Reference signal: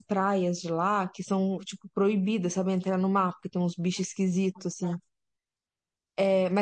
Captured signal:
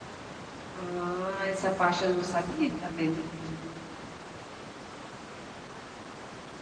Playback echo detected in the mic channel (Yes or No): No